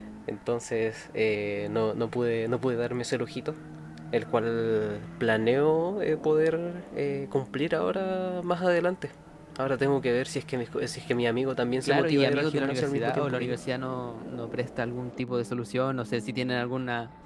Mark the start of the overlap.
11.8 s

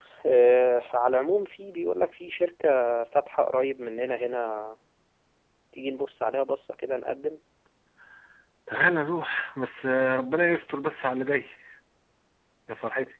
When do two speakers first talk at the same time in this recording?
none

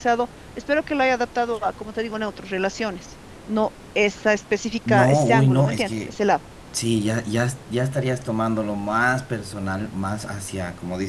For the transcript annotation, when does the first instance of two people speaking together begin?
4.9 s

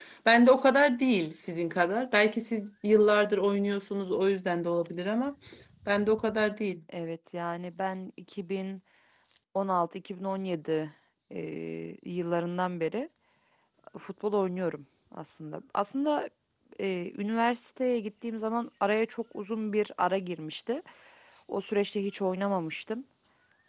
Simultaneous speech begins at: none

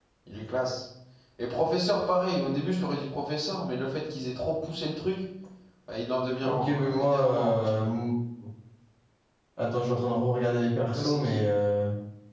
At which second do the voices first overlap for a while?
6.4 s

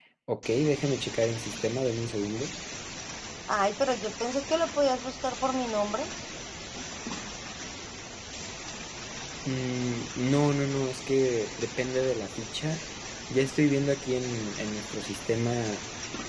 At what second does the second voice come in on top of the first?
none

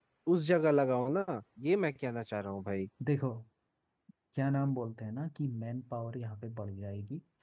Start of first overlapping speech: none

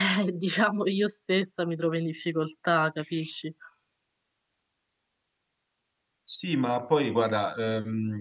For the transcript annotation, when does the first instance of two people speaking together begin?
none

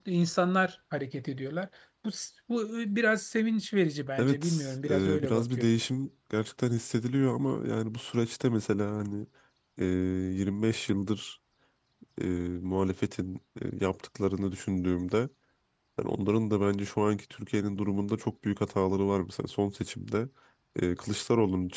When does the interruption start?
4.2 s

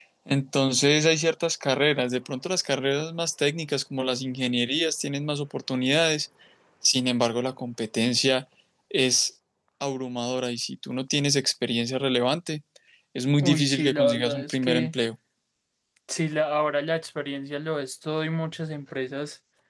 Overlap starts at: 13.4 s

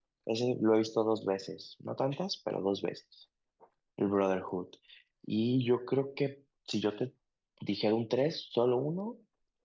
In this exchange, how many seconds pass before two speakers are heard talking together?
none

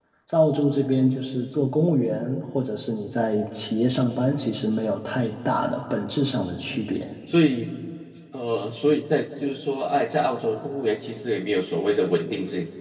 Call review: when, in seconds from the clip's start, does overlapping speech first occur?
none

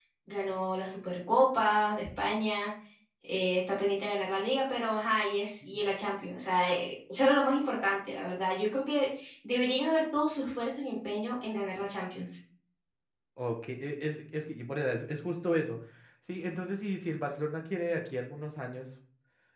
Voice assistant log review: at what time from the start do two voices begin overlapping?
none

